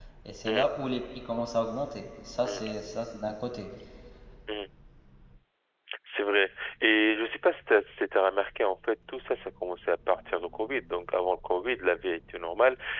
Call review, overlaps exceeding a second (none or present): none